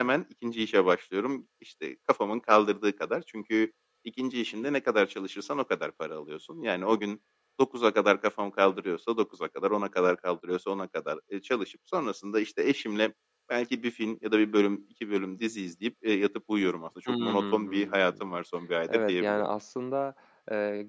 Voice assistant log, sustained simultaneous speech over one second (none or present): present